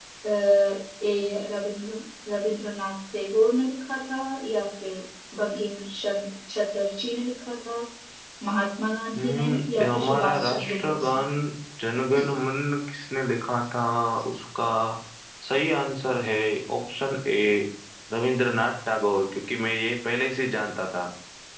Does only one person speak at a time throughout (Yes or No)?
No